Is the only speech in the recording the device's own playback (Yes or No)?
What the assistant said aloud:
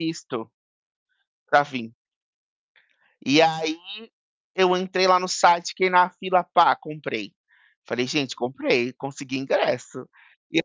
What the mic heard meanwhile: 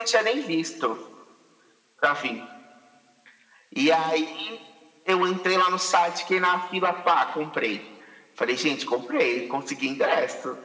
Yes